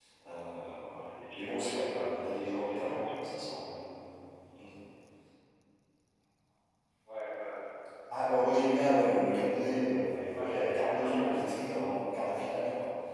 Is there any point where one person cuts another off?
Yes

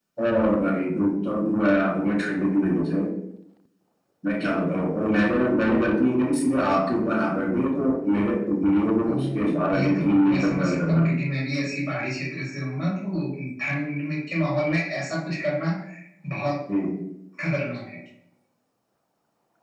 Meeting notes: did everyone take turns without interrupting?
No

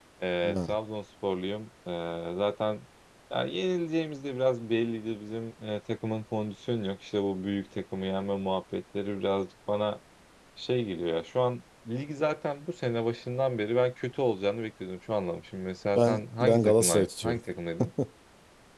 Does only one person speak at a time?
No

